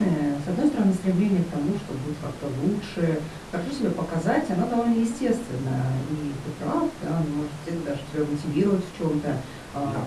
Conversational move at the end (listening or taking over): listening